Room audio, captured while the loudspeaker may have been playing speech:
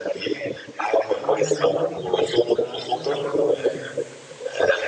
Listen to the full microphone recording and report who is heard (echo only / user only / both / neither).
both